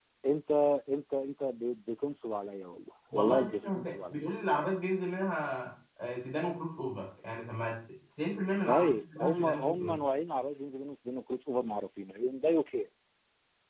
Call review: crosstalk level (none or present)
present